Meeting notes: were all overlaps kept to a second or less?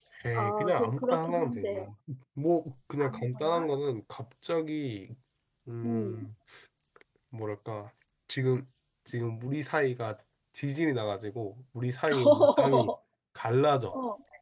No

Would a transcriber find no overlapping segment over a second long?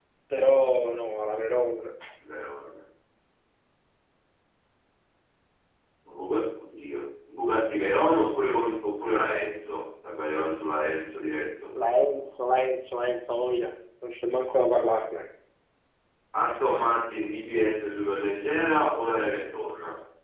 Yes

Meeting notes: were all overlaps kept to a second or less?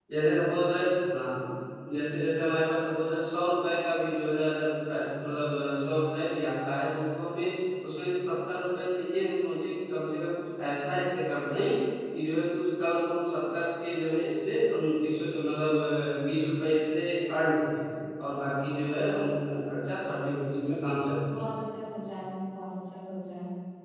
Yes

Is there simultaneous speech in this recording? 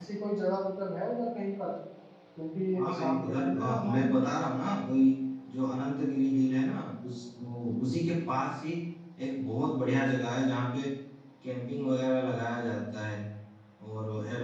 Yes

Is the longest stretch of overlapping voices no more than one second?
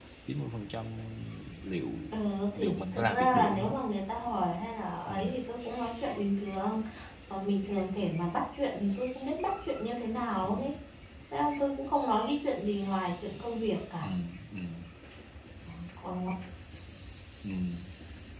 No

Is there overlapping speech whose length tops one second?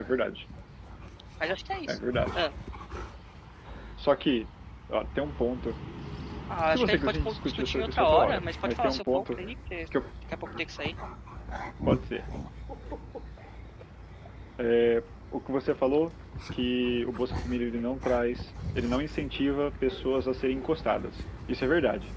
Yes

